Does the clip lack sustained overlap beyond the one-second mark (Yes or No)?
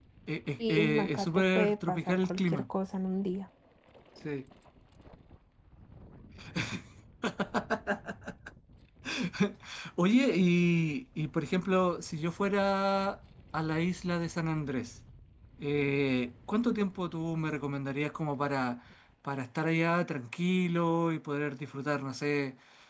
No